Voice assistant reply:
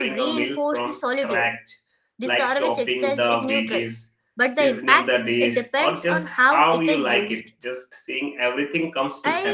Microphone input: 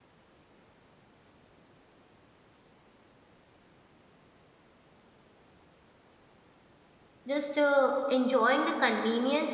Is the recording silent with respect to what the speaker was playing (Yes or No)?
Yes